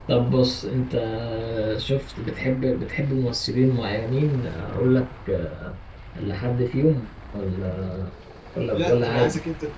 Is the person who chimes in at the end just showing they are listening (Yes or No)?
No